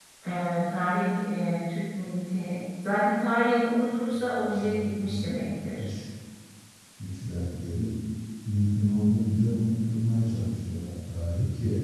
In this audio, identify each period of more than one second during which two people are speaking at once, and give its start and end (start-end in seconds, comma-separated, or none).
4.1-5.4